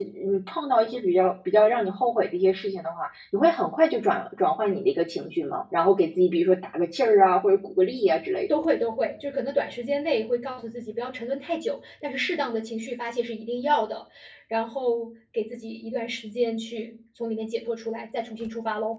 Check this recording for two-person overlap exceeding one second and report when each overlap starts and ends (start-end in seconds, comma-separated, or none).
none